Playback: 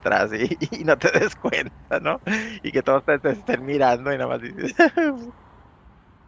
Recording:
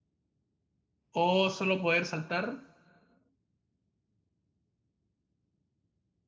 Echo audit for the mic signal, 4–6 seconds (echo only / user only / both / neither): neither